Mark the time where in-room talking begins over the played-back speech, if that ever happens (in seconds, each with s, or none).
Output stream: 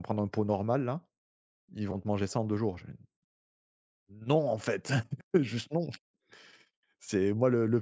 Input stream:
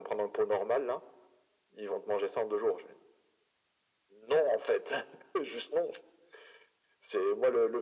none